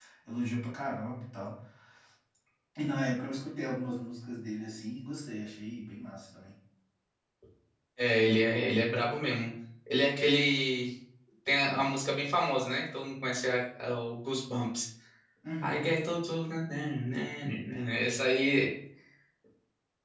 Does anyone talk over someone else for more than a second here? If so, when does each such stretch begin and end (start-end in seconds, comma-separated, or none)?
none